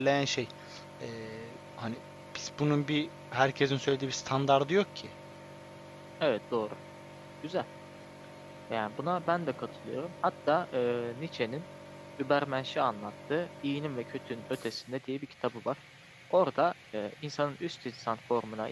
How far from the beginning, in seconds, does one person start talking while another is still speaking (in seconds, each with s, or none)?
none